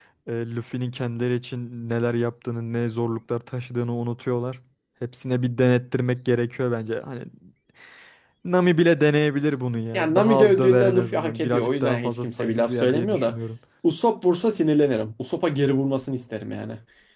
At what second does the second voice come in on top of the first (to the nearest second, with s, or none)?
10 s